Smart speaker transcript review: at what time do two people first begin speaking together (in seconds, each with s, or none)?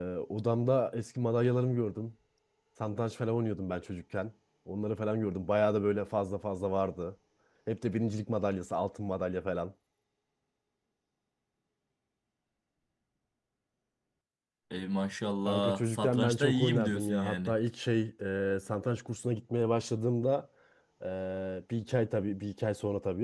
15.4 s